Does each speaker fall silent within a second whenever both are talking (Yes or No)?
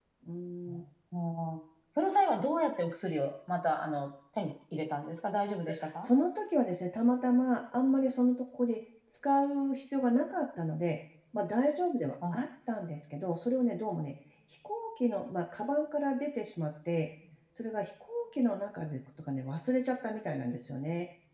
Yes